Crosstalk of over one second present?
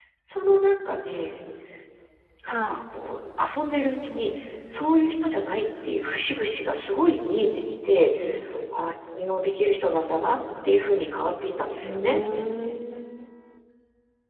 No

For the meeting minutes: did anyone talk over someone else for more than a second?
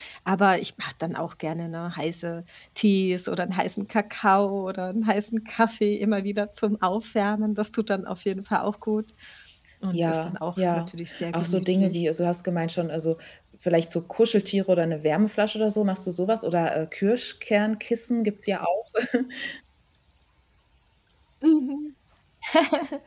Yes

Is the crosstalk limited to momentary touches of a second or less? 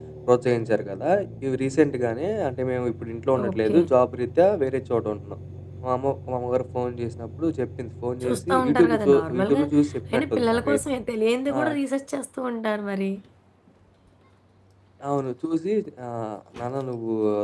No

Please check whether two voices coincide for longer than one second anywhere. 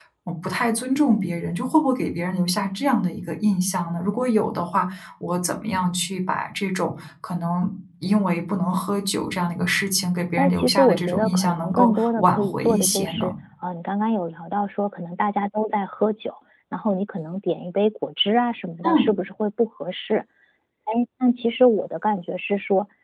Yes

